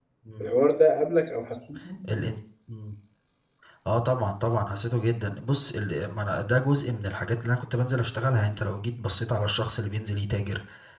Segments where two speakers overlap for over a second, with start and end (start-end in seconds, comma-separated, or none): none